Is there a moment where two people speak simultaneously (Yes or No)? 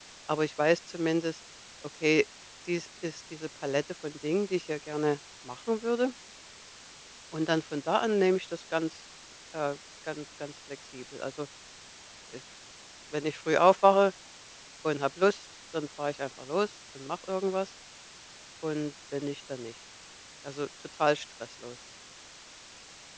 No